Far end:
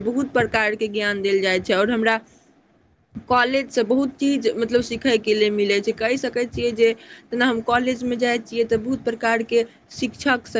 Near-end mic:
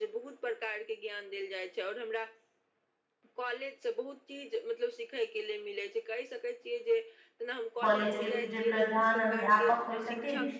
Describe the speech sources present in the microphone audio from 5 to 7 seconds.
echo only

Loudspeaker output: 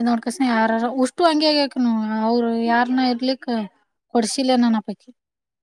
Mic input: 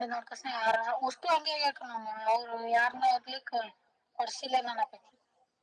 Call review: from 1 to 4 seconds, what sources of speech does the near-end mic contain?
echo only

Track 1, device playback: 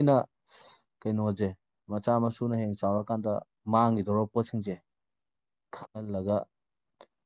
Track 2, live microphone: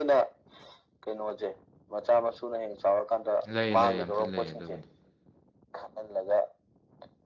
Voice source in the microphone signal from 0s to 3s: echo only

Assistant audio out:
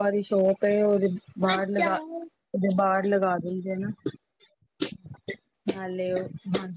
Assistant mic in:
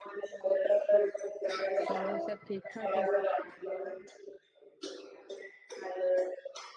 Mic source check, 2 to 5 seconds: both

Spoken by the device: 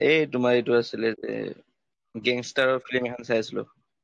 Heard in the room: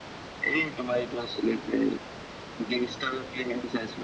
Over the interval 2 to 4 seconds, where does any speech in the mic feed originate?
echo only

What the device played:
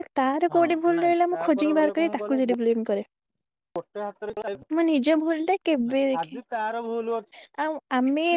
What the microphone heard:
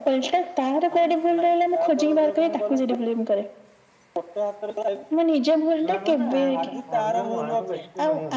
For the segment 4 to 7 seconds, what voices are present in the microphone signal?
both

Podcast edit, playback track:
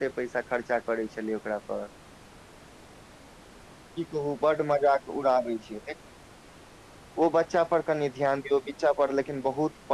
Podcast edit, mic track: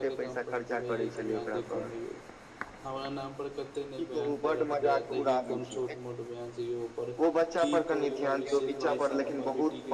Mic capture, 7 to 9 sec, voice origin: both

